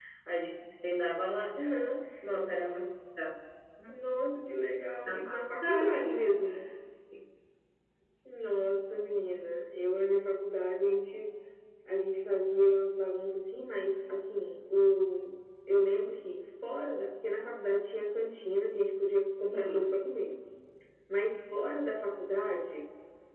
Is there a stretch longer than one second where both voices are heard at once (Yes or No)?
Yes